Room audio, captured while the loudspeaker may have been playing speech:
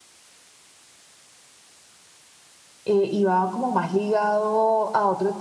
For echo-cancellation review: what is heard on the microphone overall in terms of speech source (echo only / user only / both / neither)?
user only